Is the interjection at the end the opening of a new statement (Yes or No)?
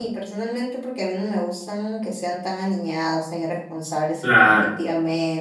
No